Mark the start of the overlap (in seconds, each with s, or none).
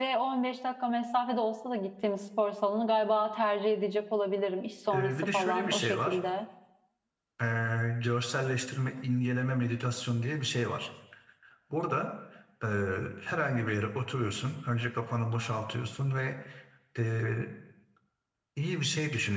4.9 s